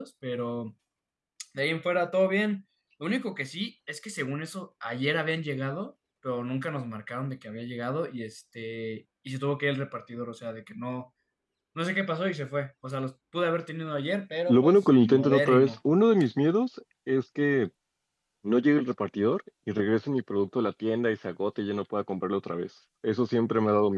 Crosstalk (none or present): present